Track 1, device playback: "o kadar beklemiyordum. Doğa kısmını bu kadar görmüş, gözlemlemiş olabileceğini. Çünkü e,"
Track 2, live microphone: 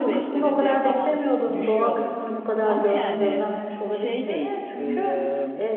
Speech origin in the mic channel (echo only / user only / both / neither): both